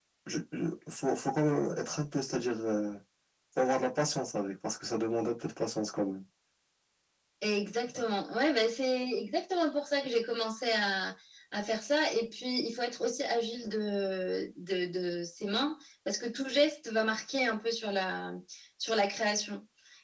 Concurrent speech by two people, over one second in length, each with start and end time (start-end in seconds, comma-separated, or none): none